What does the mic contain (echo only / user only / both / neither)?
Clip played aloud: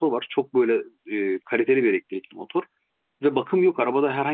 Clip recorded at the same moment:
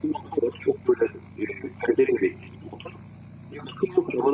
echo only